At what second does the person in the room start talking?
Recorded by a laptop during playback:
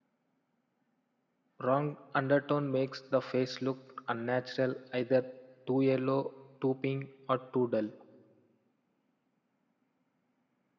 2 s

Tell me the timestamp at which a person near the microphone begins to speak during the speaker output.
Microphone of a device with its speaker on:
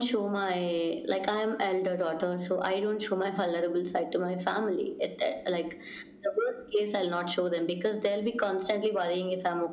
none

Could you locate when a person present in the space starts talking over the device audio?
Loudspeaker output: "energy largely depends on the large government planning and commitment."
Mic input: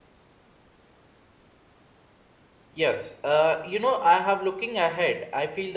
3 s

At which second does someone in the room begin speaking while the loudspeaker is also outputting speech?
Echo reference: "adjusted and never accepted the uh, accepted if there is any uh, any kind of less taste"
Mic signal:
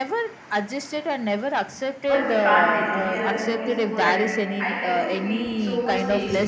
2 s

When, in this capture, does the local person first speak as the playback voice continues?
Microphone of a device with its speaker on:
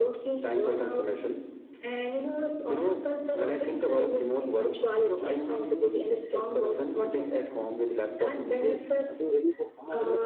9 s

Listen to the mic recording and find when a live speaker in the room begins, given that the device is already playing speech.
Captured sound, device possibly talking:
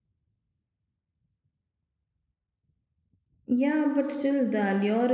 3 s

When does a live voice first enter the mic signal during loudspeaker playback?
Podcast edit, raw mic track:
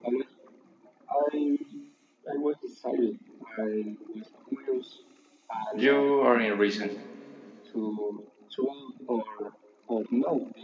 6 s

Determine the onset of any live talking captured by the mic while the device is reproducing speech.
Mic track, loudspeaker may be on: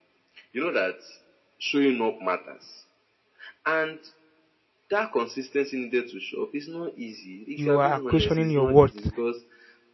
8 s

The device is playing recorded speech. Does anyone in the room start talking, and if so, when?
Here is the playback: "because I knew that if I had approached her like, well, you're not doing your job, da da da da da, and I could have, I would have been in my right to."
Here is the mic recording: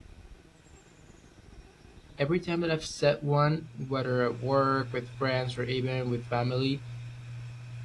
2 s

